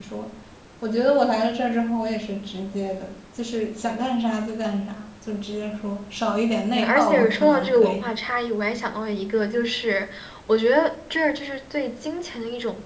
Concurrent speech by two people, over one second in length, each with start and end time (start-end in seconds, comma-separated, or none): 6.8-8.0